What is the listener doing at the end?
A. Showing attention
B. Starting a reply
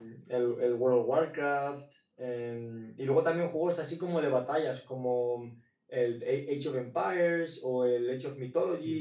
B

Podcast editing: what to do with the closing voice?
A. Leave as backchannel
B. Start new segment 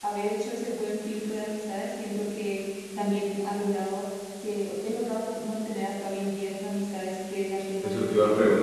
B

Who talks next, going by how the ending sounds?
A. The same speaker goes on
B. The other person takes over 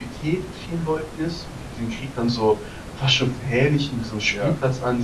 A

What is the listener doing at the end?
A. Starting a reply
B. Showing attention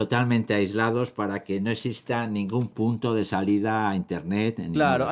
A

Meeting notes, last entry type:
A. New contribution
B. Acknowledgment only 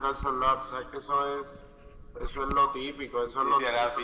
A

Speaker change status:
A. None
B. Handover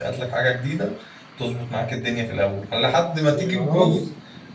A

